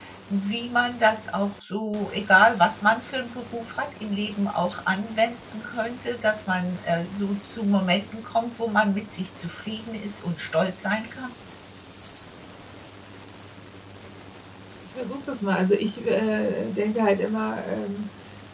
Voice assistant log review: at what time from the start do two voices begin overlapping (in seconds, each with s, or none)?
none